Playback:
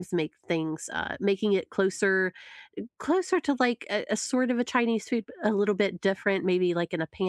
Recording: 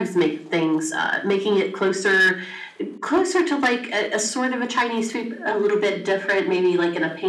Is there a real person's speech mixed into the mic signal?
No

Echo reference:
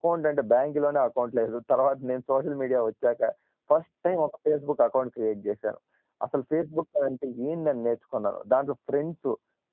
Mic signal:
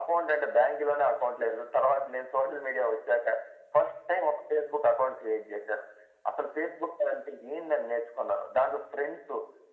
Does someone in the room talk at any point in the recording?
No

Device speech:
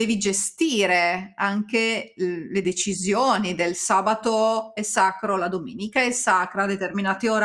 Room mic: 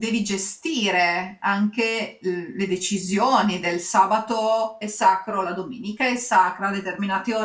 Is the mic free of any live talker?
Yes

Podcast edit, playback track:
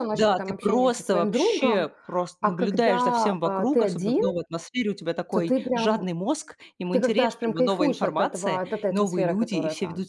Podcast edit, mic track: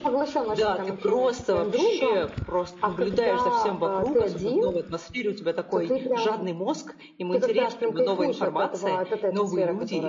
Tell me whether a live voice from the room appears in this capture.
No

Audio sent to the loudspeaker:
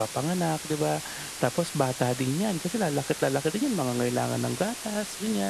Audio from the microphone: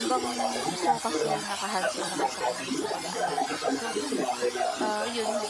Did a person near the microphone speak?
Yes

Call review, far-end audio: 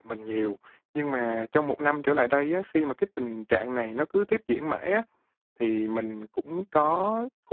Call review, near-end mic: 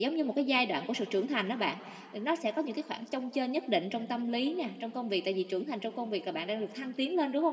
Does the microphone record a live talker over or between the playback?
Yes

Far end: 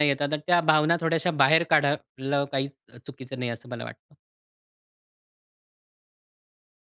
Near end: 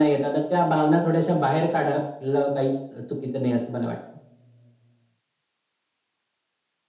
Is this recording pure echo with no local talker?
Yes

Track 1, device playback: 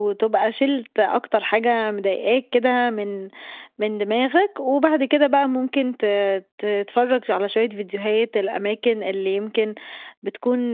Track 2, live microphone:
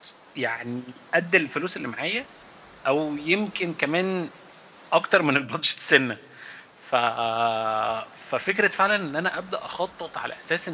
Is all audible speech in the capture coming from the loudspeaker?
No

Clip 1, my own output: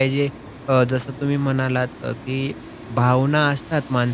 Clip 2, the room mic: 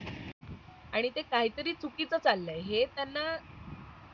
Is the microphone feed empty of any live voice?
No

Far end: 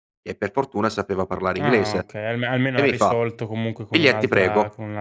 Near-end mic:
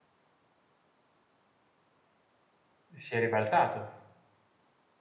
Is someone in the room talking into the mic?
Yes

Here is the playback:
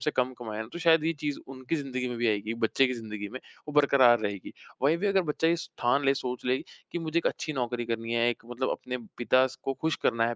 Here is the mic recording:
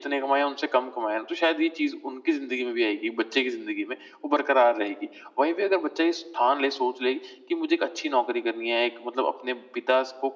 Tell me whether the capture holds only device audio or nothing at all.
Yes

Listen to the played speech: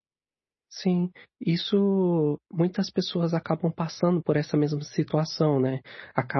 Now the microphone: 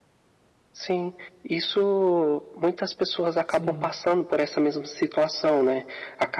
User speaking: Yes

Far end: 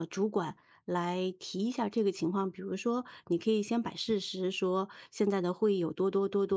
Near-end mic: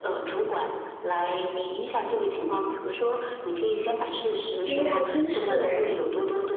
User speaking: Yes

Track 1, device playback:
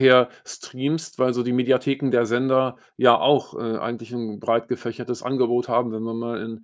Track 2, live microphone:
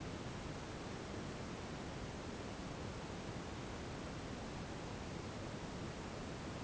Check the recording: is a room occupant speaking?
No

